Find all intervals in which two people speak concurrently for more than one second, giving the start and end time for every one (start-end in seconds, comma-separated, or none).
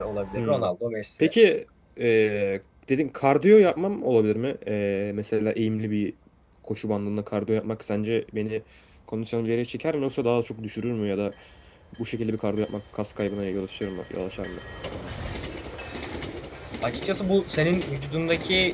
none